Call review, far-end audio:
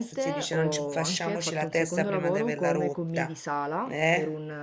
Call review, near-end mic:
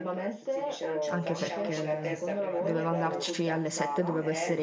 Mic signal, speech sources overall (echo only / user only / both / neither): both